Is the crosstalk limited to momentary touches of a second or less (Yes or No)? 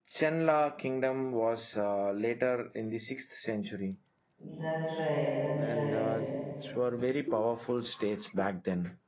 Yes